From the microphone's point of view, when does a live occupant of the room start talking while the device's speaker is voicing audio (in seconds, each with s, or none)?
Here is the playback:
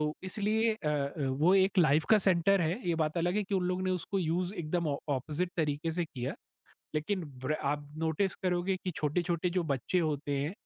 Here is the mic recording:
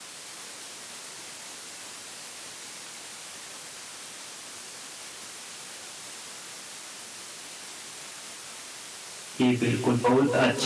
9.4 s